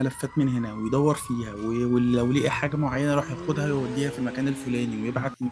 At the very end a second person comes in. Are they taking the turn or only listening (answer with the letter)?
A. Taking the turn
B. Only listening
B